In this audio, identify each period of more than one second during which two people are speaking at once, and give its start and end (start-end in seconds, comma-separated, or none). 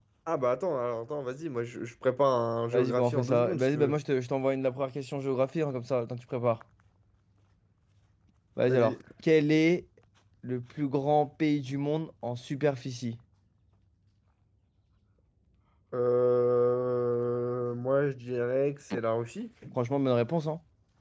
2.7-4.0